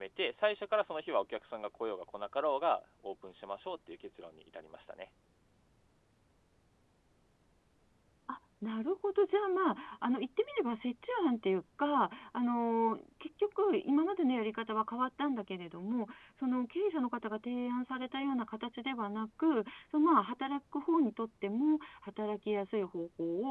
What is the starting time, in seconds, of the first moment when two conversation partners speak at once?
none

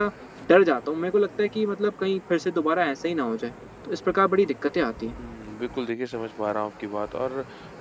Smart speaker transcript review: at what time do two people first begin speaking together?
none

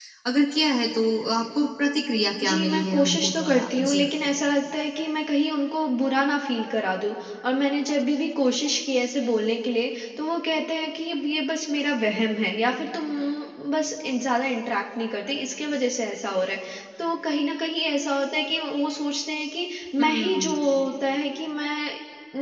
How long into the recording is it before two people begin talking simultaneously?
2.4 s

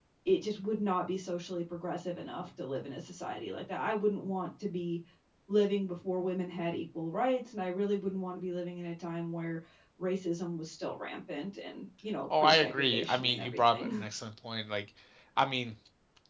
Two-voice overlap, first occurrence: 12.3 s

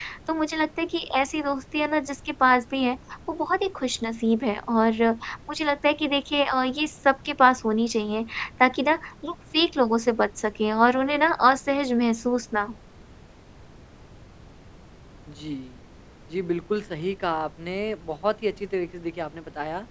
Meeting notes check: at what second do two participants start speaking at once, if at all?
none

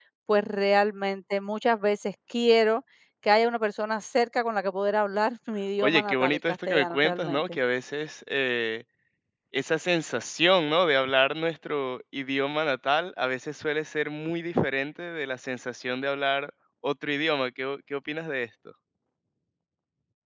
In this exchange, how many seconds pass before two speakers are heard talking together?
5.8 s

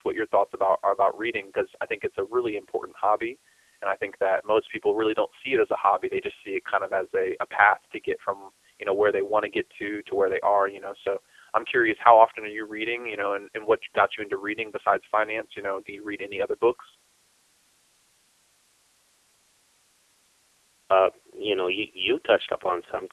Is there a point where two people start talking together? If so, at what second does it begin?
none

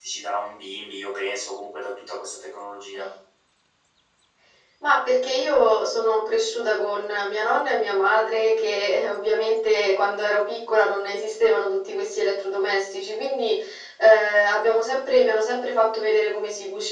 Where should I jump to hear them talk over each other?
none

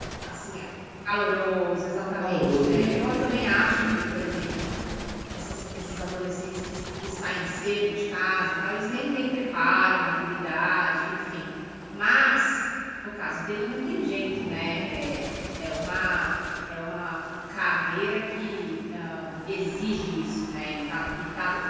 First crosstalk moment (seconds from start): 2.2 s

